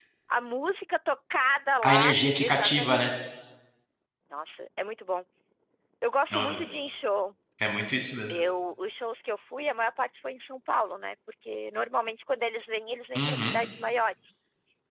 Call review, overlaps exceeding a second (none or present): present